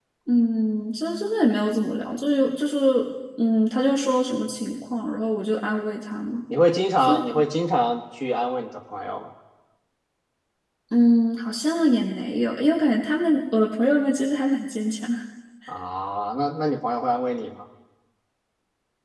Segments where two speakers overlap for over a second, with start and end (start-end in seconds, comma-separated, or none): none